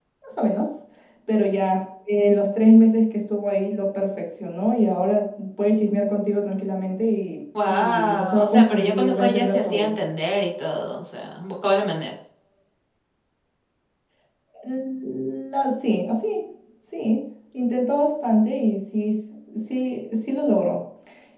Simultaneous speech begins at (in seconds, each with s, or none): 7.6 s